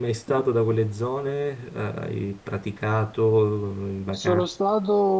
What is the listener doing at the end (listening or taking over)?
taking over